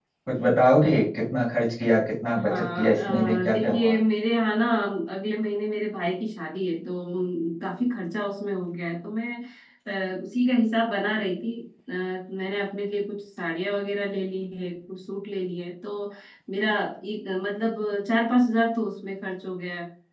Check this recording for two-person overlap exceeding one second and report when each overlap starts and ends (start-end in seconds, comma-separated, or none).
2.5-4.0